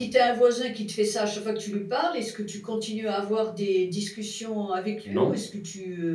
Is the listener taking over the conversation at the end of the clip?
No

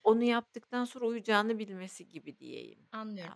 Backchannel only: No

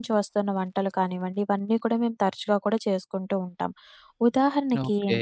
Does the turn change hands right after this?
No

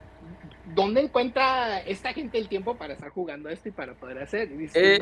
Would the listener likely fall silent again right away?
No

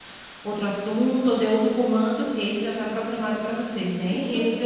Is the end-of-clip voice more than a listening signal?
Yes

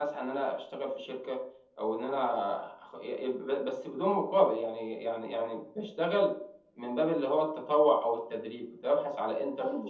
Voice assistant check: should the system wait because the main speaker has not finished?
No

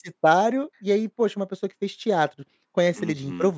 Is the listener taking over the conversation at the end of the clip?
No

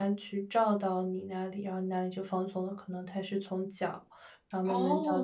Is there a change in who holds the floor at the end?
Yes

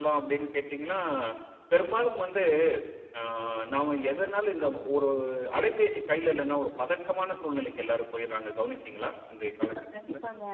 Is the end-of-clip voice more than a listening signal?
Yes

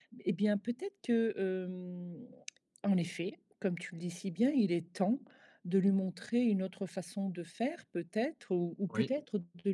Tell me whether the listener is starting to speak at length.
No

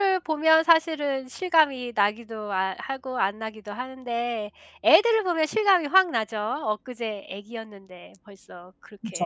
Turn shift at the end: Yes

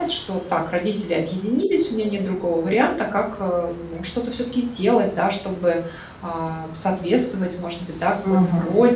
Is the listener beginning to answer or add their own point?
No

